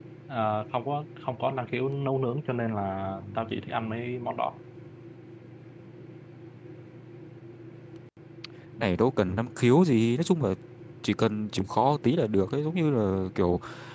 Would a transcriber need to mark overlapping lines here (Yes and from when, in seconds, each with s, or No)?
No